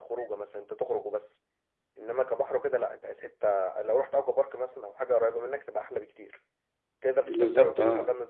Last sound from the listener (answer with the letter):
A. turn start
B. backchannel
B